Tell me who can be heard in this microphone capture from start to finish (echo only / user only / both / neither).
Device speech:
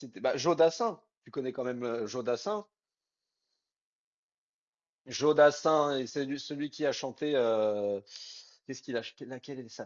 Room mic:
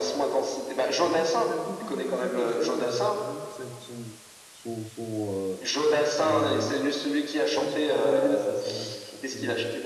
both